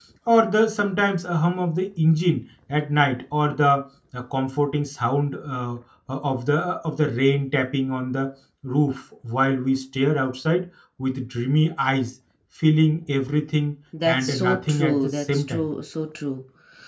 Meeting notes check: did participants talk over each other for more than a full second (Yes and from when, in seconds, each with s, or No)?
Yes, from 13.9 s